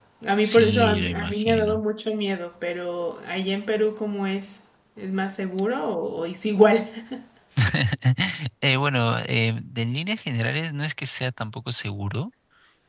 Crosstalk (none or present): present